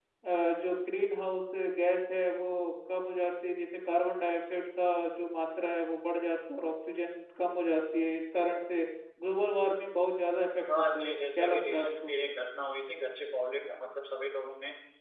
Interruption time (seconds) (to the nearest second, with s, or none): 11 s